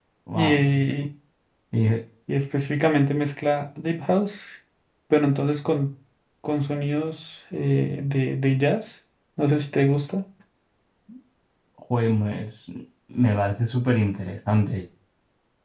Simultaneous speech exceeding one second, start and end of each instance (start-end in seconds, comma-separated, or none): none